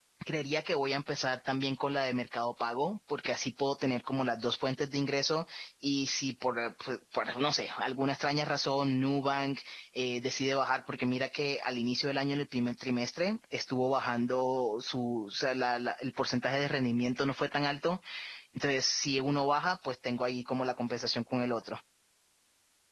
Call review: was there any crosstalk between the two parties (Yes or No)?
No